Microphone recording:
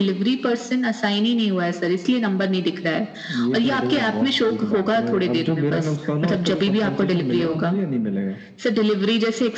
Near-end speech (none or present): none